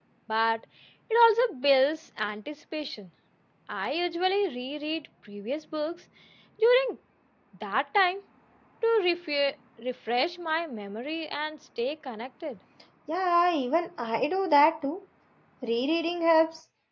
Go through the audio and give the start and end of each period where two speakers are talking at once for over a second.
none

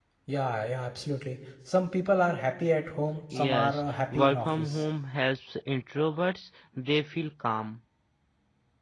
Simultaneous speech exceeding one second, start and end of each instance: 3.4-4.8

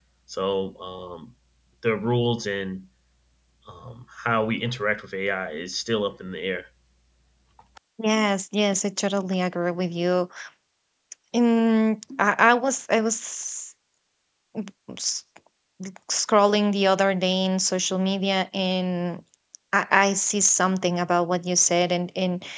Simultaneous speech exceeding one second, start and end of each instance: none

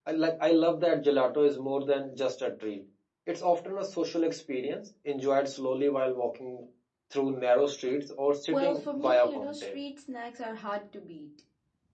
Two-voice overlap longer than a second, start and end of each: 8.5-9.8

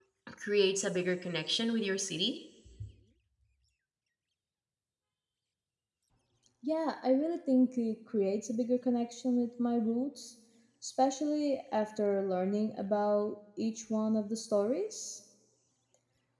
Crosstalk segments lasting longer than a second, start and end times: none

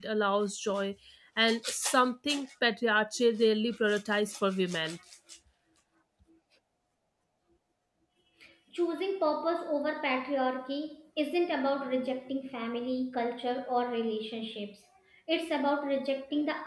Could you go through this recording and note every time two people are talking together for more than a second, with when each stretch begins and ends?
none

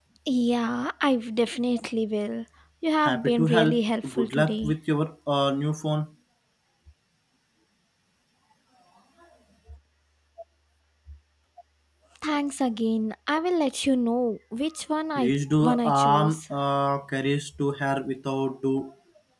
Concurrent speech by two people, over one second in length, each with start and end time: 3.0-4.7, 15.2-16.4

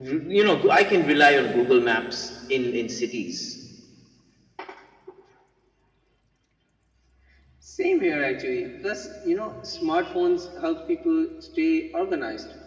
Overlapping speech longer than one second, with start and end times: none

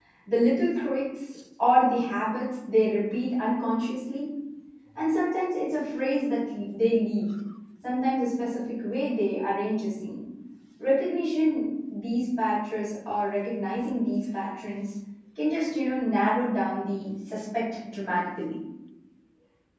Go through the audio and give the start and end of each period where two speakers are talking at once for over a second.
none

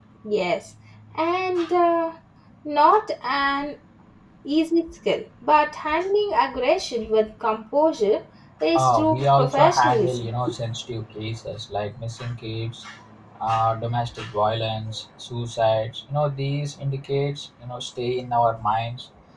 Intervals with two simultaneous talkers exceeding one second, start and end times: 8.8-10.3

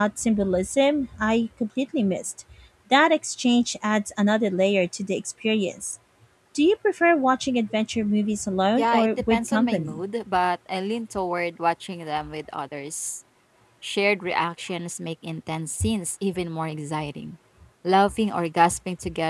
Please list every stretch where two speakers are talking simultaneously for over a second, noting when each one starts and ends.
8.8-10.0

